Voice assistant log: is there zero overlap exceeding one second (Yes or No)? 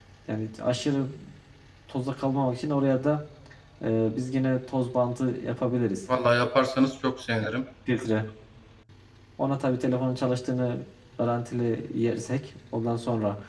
Yes